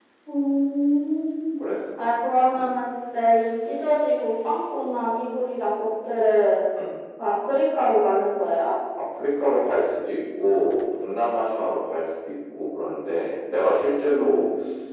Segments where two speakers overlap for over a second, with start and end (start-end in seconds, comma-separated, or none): none